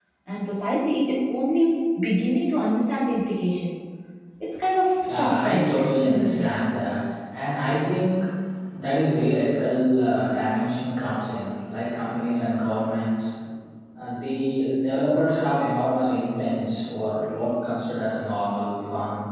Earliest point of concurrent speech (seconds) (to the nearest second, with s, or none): 5 s